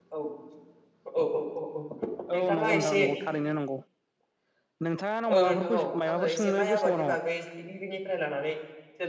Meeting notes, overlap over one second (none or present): present